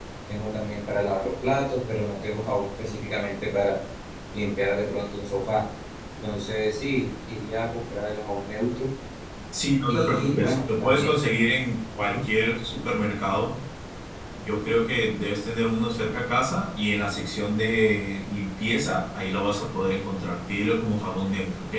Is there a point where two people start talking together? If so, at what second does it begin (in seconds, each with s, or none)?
9.9 s